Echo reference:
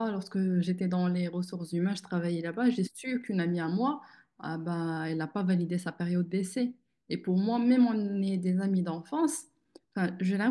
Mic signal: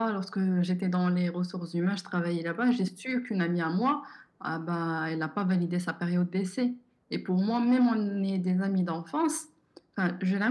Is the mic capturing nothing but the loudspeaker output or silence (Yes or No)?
Yes